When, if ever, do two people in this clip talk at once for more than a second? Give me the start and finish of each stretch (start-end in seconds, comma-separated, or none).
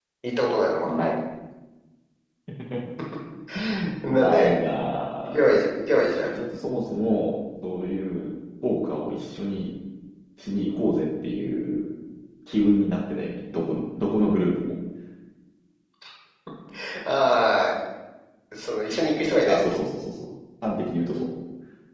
none